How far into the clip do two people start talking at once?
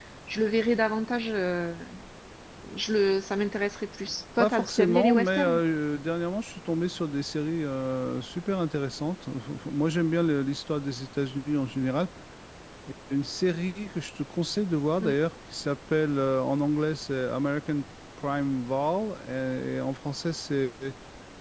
4.4 s

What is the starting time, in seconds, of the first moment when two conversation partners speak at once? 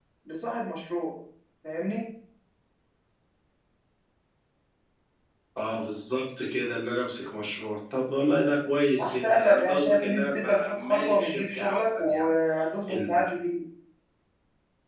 9.0 s

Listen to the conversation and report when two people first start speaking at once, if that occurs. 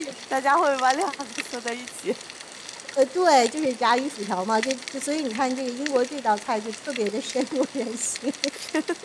none

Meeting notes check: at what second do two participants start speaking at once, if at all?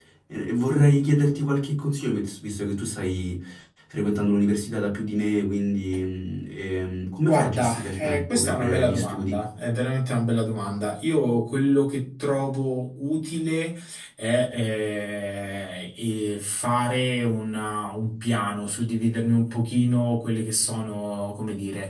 7.2 s

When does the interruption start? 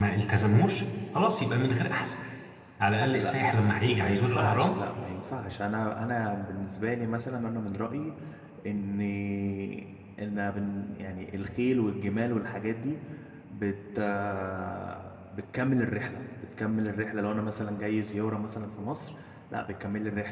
3.0 s

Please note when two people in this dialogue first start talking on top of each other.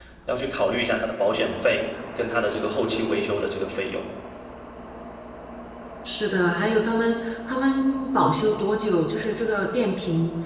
none

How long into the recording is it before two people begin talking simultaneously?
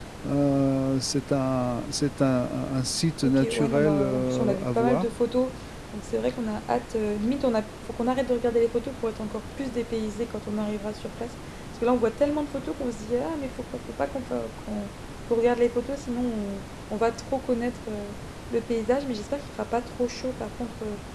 3.2 s

